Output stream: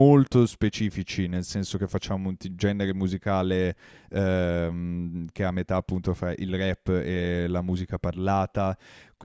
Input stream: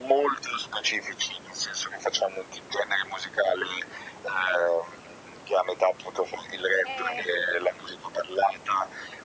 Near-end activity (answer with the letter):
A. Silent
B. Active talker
B